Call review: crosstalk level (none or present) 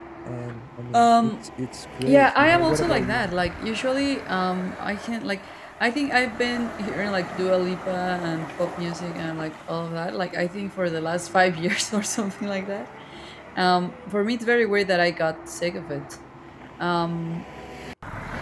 present